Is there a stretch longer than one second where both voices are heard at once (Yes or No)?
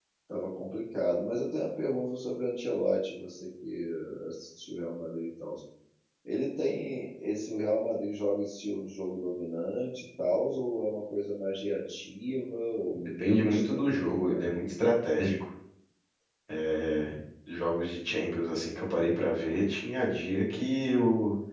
Yes